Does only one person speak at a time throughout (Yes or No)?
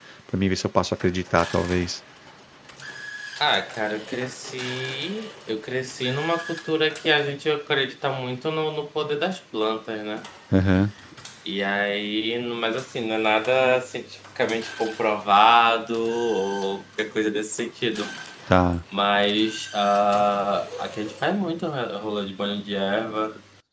Yes